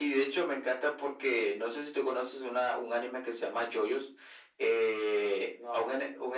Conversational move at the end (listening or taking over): listening